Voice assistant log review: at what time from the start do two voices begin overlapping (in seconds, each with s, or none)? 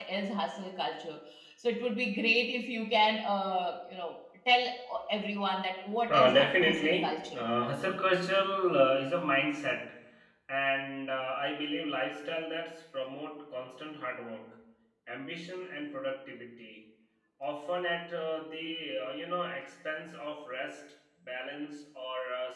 6.1 s